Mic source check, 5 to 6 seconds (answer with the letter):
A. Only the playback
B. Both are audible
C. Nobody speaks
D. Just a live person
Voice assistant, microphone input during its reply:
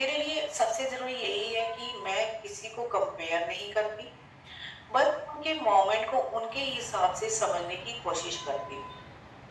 A